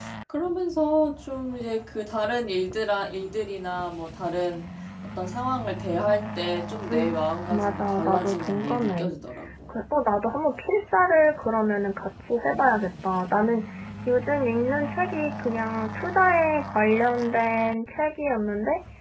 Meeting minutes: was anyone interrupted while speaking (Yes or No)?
Yes